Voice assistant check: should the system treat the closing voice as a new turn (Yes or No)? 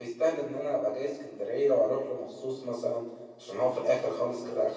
Yes